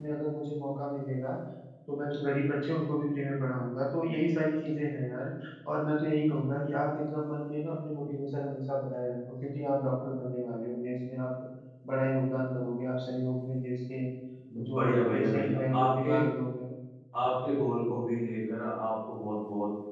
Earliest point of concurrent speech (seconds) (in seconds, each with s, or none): 14.7 s